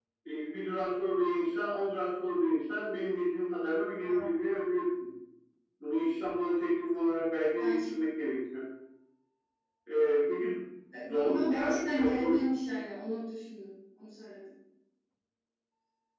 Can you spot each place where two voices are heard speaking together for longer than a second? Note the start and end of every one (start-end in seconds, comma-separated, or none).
11.1-12.4